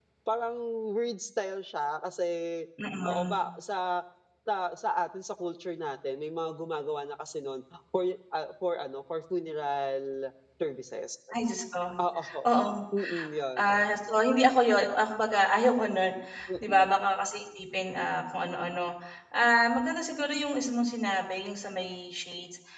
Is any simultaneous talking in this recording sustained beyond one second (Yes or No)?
No